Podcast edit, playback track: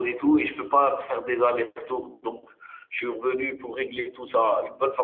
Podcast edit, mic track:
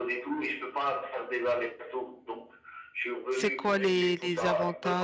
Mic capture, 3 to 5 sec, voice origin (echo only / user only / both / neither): both